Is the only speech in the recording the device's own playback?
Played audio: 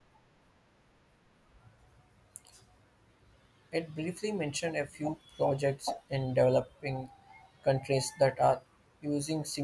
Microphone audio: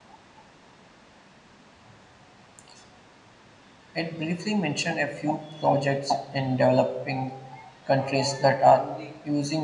No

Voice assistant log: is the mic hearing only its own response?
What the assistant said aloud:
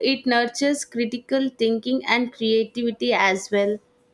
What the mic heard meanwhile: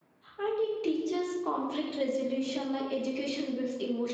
No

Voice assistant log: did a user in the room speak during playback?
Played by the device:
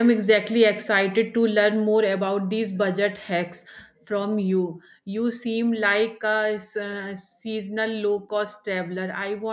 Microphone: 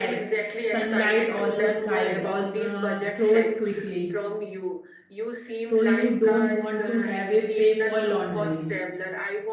Yes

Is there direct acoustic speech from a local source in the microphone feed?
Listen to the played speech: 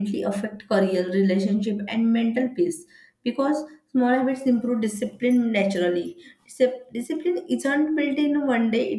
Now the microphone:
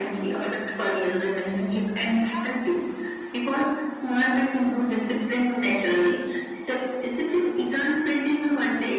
Yes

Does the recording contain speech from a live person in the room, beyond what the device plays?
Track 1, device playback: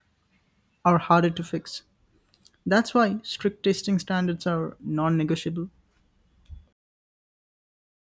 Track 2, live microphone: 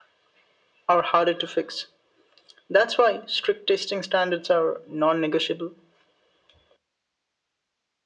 No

